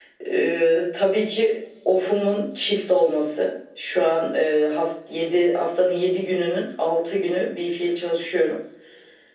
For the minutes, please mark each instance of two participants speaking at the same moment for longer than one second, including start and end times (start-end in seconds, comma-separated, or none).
none